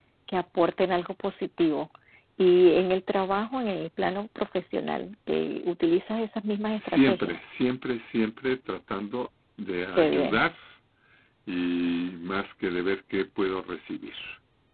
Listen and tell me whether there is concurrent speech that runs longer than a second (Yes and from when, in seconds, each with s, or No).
No